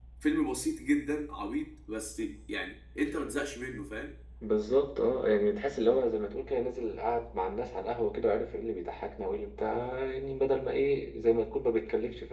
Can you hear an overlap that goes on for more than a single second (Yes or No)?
No